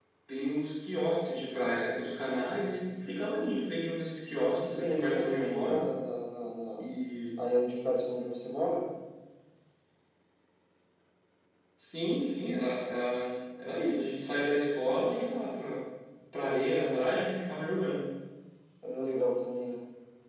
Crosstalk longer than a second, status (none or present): present